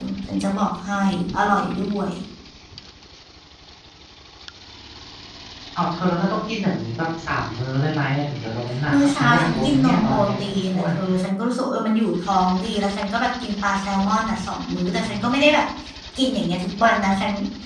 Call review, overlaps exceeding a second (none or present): present